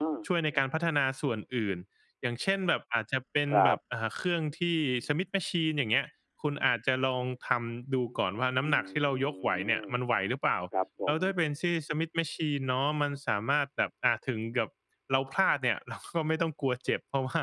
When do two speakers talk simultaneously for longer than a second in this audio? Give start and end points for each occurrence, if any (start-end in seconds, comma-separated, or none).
8.6-9.8